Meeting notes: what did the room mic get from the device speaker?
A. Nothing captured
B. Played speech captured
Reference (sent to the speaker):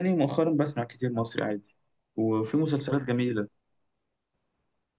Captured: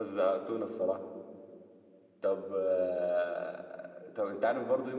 A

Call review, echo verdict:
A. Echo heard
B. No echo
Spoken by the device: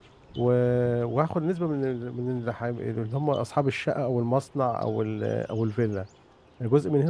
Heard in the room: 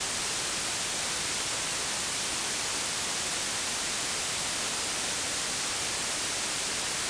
B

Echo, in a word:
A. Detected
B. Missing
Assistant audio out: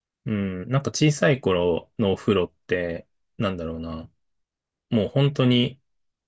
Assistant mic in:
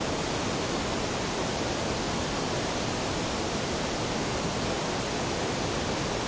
B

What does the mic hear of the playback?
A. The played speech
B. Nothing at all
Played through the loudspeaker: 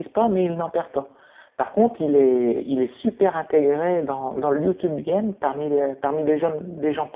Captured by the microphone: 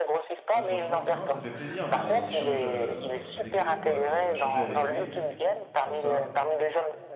A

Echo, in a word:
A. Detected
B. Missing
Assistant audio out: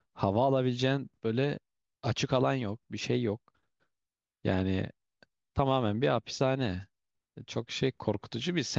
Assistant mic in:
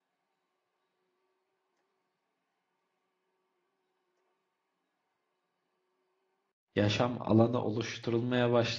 B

